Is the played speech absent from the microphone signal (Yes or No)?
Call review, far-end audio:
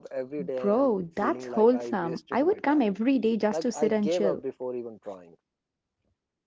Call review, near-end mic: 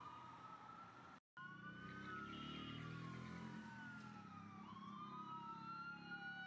Yes